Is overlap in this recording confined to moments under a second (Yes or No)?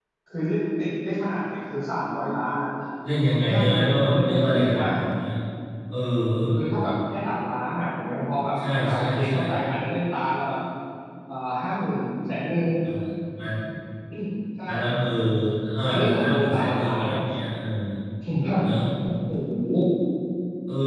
No